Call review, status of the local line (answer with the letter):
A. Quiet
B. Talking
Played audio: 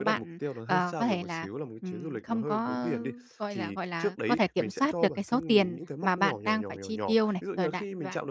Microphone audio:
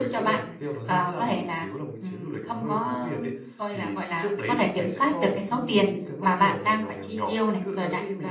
A